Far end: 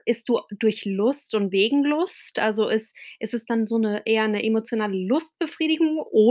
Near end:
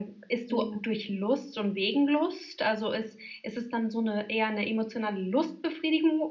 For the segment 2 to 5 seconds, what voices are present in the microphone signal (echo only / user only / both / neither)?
echo only